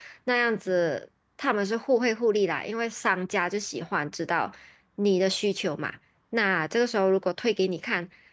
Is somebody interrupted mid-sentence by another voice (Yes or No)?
No